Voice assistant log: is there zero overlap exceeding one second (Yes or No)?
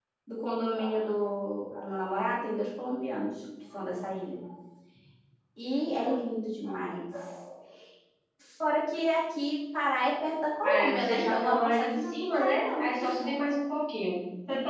No